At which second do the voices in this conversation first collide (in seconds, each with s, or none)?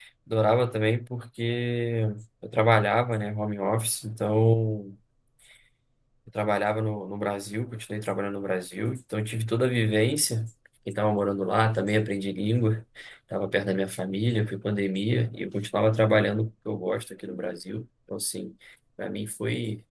none